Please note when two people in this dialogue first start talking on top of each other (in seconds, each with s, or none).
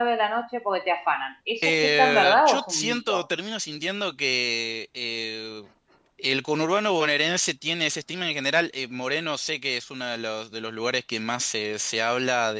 1.6 s